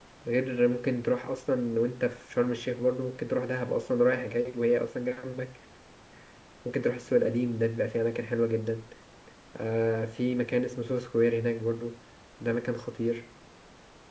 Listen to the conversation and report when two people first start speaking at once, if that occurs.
none

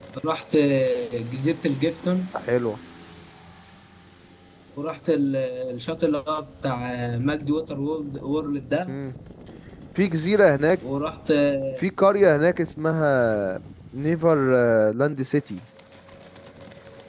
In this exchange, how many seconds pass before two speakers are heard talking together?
none

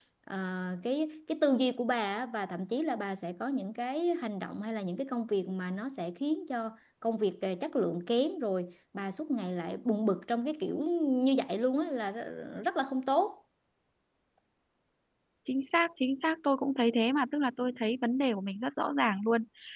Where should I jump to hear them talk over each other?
none

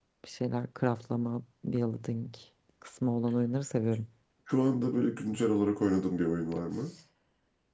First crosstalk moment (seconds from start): none

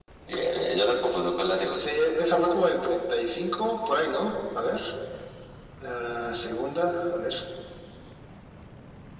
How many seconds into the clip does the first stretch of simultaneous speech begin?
none

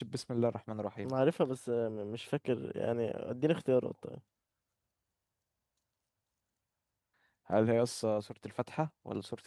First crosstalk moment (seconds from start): none

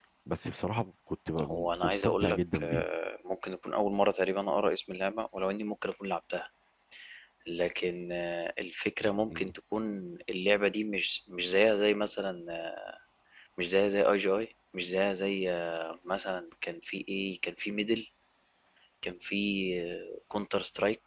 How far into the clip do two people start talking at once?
1.4 s

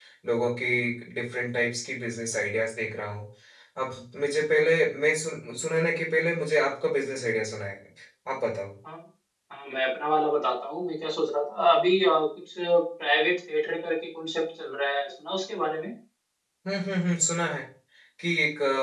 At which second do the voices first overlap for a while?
none

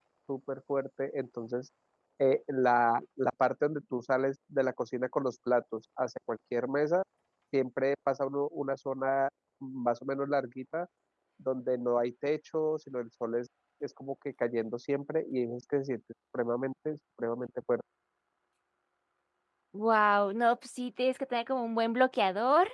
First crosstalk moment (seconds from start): none

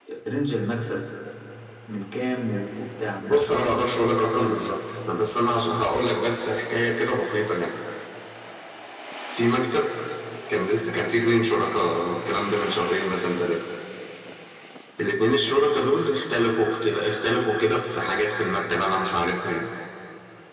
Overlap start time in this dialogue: 3.3 s

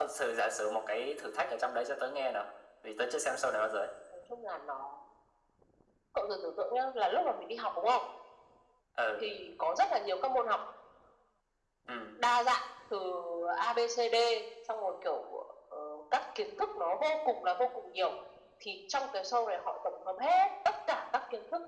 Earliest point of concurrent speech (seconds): none

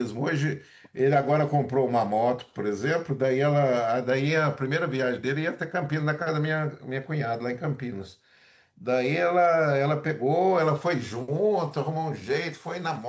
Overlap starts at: none

